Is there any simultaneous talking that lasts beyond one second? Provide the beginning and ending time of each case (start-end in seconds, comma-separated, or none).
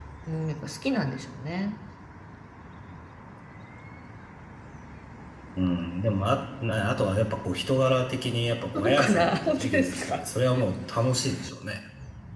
8.7-10.2